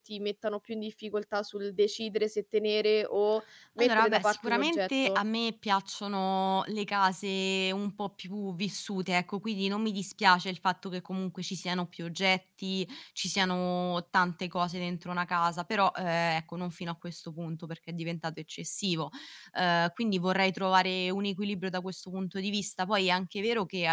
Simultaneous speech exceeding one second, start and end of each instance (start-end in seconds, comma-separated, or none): 3.8-5.2